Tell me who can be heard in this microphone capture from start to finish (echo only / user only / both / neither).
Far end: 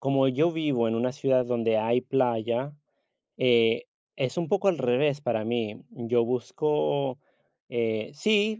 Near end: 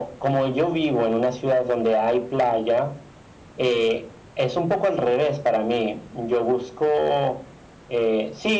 echo only